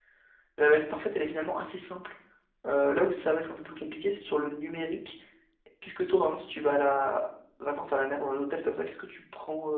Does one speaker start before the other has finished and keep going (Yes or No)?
No